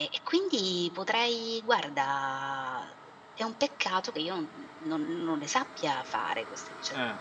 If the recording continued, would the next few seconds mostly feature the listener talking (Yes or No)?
Yes